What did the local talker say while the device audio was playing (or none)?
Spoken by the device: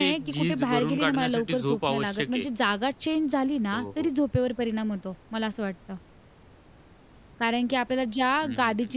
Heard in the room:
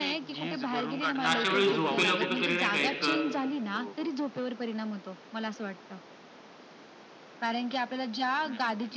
तर अशा वेळी झोपेला कुठेतरी नाही का, एक